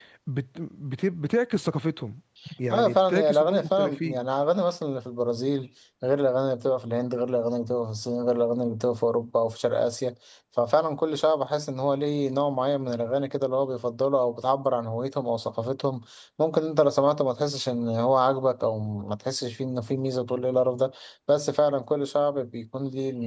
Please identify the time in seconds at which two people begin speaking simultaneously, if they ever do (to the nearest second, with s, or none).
3 s